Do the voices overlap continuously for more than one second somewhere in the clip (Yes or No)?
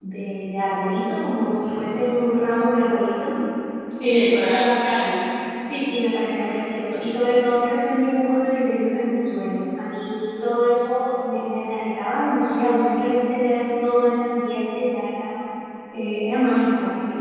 No